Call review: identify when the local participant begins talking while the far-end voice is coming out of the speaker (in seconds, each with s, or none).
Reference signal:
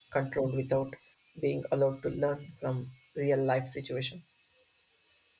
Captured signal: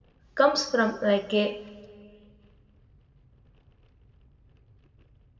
0.3 s